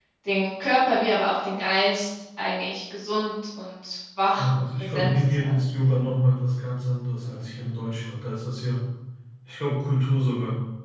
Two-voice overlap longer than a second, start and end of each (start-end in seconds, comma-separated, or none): 4.4-5.9